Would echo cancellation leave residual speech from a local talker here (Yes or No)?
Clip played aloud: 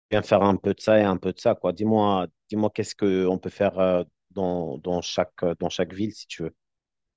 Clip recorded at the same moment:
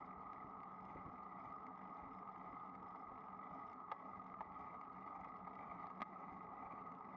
No